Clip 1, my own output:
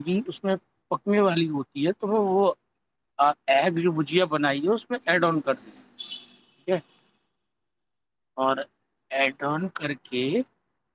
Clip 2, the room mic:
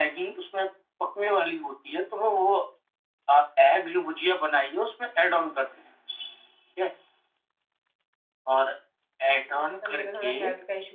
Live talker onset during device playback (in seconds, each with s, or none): 9.4 s